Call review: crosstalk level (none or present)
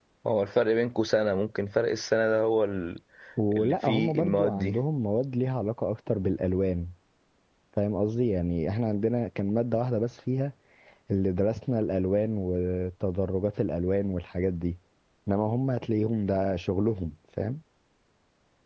present